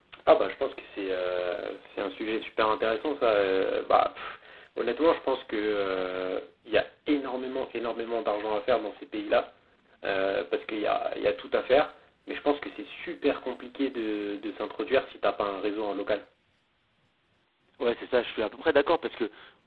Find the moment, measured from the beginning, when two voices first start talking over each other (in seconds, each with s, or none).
none